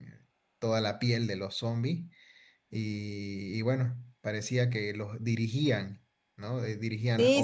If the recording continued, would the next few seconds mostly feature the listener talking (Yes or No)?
Yes